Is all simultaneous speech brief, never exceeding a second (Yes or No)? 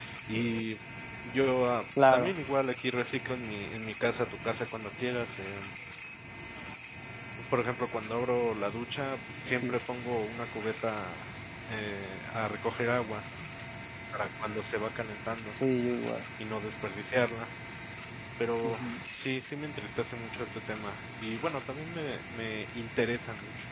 Yes